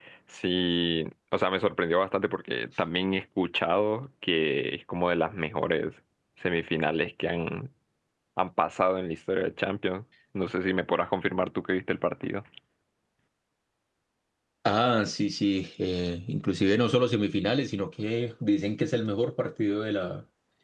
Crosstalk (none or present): none